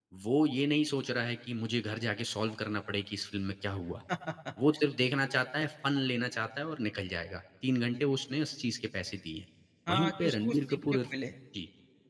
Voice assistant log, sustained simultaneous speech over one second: present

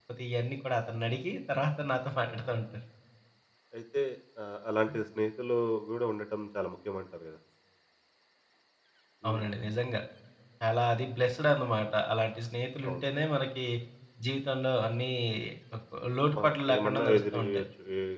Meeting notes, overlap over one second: present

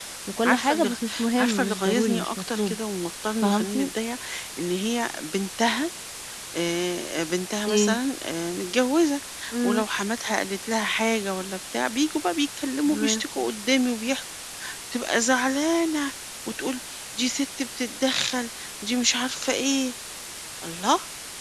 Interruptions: present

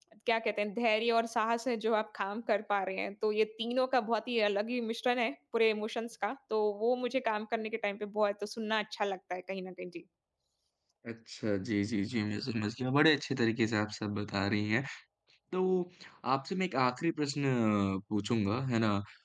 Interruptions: none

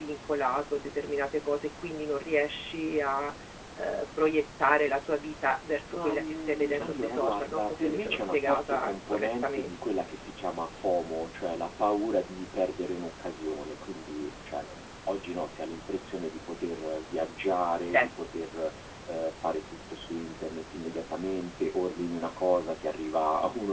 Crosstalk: present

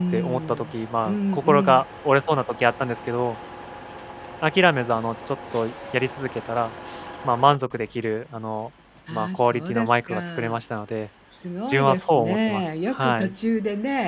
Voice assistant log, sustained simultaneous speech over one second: present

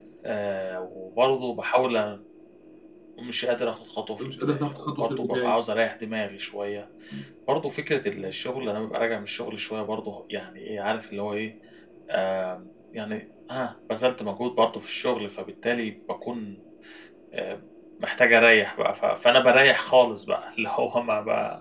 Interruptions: present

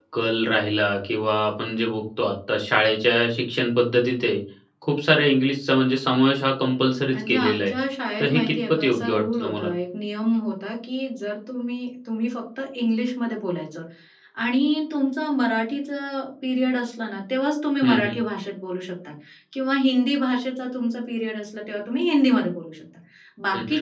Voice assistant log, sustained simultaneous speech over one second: present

